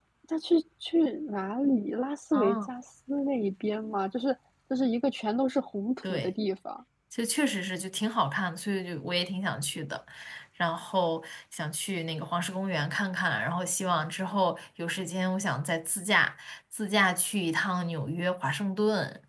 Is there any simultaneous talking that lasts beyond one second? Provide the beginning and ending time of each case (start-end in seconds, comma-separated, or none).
none